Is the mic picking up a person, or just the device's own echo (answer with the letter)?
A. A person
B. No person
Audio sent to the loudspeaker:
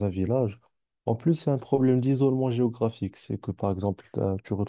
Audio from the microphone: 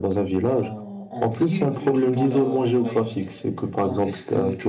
A